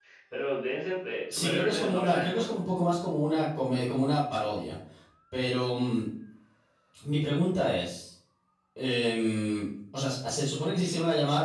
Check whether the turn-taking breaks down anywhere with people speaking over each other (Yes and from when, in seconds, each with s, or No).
Yes, from 1.3 s